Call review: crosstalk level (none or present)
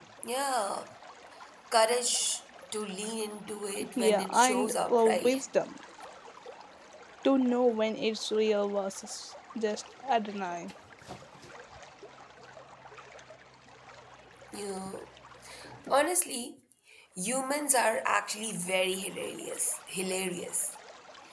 present